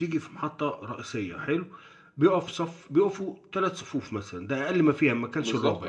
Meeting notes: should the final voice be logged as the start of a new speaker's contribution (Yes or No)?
No